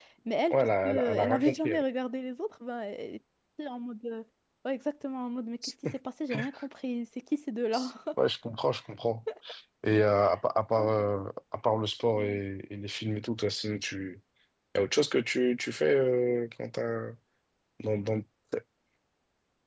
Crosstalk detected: Yes, from 0.5 s

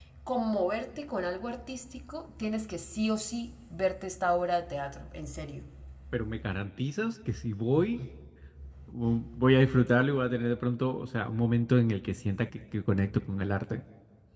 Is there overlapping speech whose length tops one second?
No

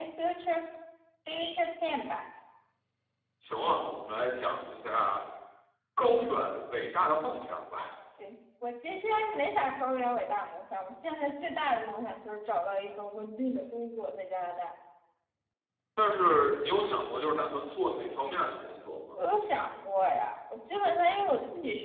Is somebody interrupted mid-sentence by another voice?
No

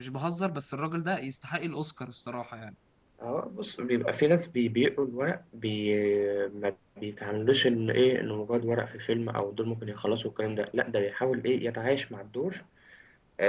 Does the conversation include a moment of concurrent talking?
No

